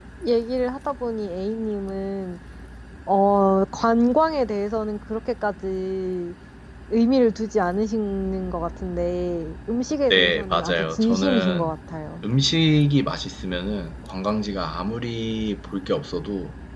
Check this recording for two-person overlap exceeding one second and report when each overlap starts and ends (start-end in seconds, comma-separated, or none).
10.1-11.7